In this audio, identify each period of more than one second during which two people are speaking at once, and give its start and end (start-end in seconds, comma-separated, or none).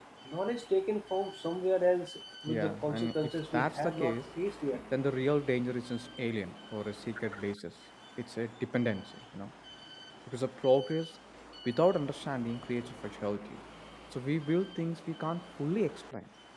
2.5-4.2